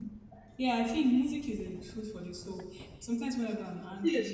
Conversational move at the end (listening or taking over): listening